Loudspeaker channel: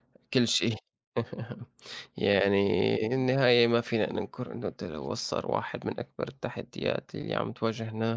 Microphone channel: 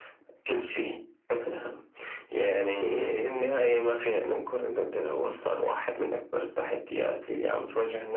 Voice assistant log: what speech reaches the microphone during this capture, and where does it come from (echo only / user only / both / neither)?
echo only